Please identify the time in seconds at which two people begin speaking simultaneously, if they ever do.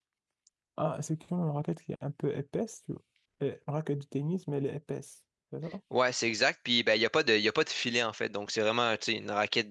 none

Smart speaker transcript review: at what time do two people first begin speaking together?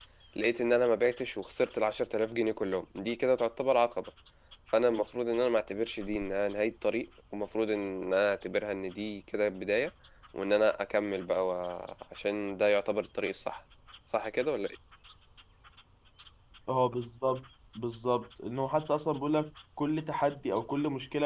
none

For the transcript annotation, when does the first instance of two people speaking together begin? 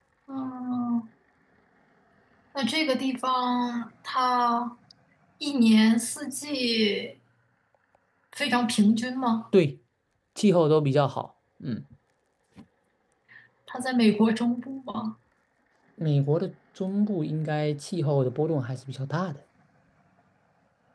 none

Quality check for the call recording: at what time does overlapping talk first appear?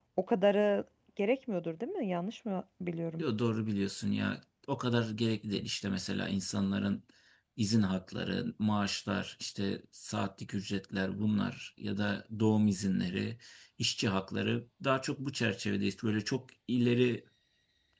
none

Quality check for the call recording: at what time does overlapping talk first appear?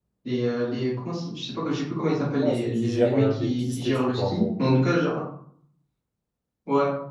2.4 s

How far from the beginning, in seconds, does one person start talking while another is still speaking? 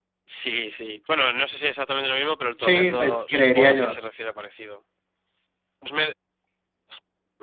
2.6 s

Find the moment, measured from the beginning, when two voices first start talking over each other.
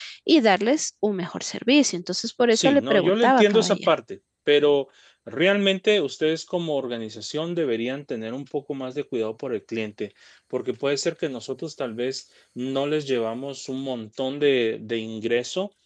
2.5 s

